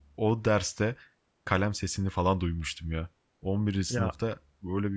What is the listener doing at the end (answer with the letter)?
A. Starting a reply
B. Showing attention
B